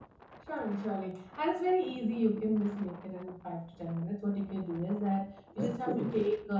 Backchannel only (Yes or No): Yes